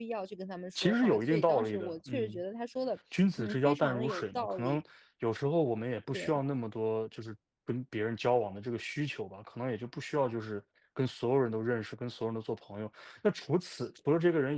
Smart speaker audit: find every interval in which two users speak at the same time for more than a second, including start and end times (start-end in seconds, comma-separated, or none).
0.8-2.4, 3.4-4.8